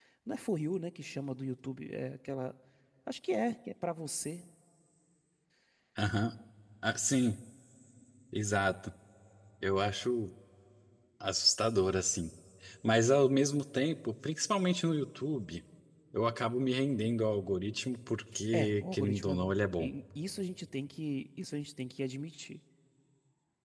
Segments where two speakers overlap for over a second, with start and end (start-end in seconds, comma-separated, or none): 18.5-19.9